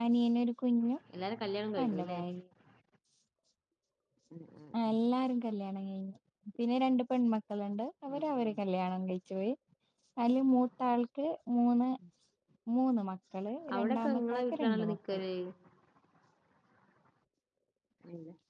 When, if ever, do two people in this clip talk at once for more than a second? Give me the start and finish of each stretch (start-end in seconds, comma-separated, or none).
13.7-15.2